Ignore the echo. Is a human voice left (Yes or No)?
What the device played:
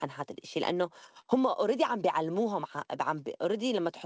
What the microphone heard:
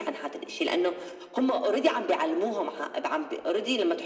No